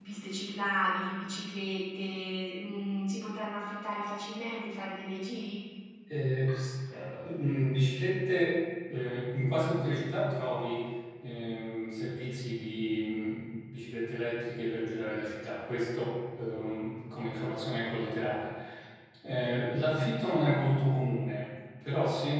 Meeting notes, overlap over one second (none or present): none